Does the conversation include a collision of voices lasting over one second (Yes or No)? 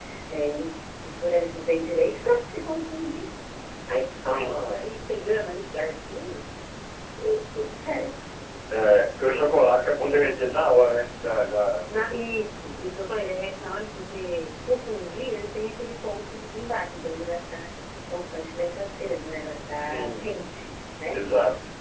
No